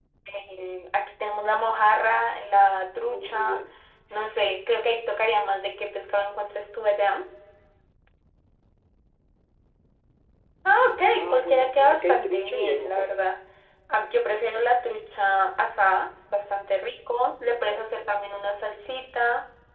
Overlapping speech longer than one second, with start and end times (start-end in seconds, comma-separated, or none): 11.1-13.3